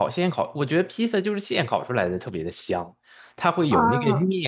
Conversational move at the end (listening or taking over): listening